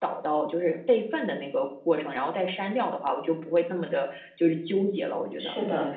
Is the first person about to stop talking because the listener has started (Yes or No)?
Yes